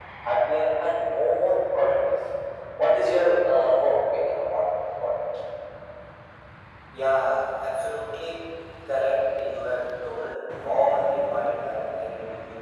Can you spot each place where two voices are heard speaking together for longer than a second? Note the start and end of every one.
none

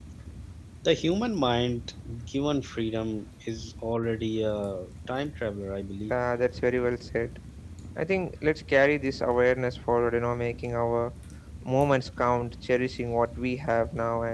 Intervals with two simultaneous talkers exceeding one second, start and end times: none

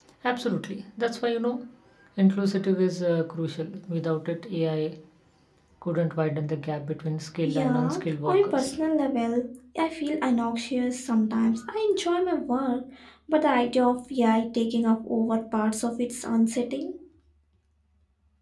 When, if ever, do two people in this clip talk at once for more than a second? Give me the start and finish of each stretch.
7.4-8.8

